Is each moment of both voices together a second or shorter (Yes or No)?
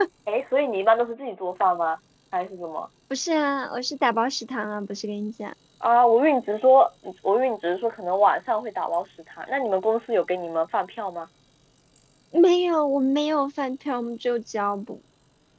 Yes